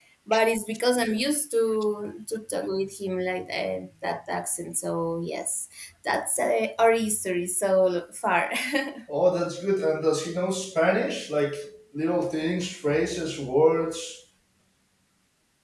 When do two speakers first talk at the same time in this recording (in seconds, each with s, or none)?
none